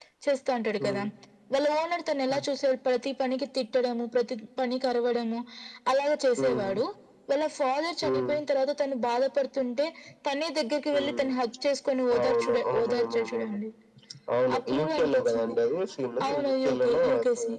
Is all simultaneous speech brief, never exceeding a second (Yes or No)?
No